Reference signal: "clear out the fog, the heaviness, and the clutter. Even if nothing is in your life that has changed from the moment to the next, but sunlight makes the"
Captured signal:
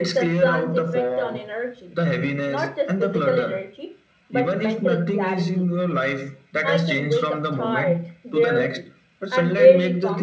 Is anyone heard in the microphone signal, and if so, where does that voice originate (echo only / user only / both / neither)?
both